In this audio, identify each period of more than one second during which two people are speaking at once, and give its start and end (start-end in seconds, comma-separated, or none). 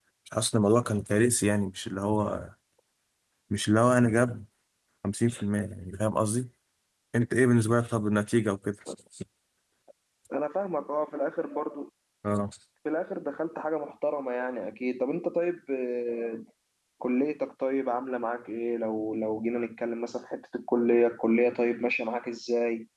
none